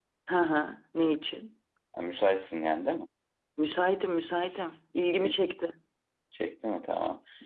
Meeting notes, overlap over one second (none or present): none